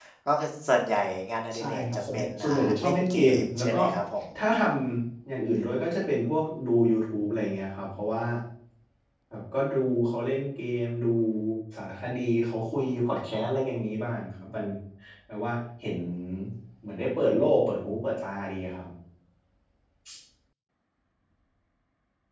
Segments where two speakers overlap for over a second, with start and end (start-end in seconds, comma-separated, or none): 1.6-3.8